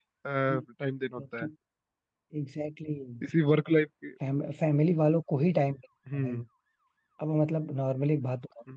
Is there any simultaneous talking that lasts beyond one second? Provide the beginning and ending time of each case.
none

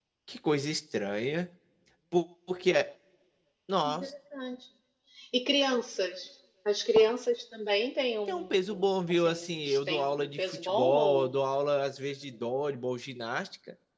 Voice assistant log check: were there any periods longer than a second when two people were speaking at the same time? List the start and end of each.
8.3-11.3

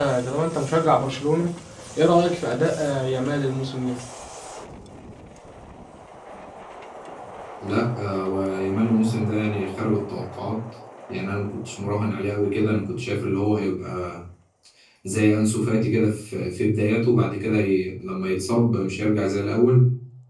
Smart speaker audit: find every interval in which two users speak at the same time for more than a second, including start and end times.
none

